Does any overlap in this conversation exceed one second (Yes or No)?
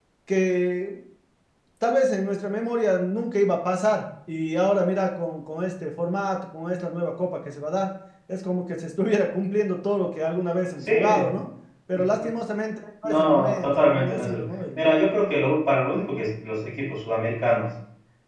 Yes